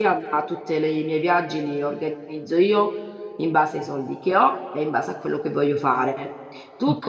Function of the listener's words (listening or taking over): listening